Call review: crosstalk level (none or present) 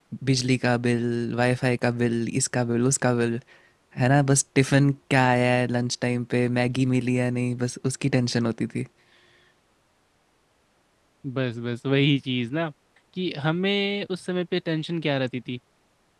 none